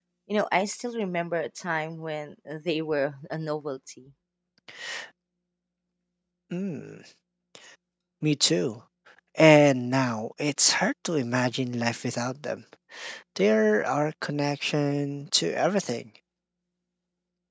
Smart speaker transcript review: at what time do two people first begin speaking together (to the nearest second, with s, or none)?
none